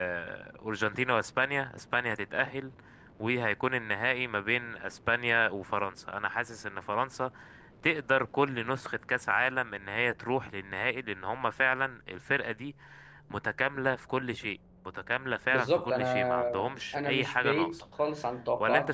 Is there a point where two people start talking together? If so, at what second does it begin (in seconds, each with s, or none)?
15.5 s